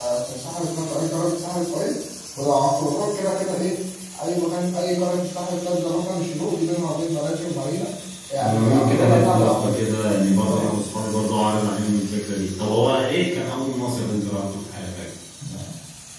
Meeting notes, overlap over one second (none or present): present